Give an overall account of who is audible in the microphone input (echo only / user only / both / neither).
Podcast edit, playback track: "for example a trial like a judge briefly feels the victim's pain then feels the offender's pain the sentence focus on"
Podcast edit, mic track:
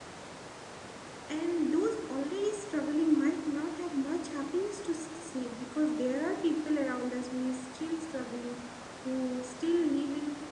user only